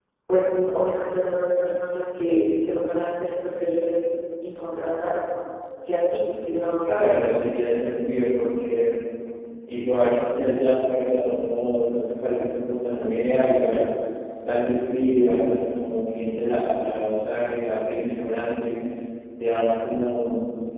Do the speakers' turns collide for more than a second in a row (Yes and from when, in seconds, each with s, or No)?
No